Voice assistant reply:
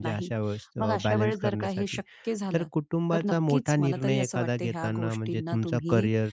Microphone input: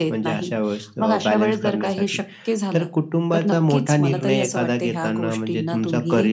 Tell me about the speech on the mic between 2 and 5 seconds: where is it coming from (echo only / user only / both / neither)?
echo only